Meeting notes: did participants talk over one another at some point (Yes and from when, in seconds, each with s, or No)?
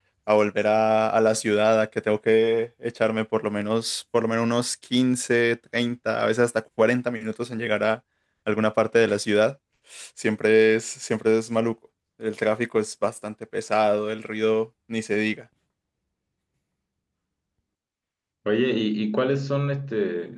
No